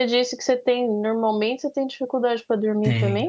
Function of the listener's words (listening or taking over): taking over